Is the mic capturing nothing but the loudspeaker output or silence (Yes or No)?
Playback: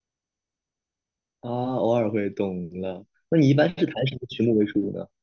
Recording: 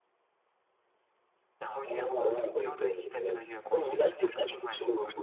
No